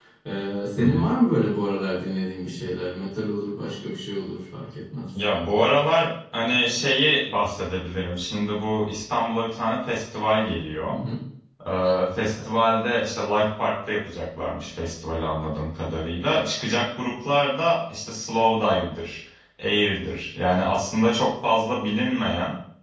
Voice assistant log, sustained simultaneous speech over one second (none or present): none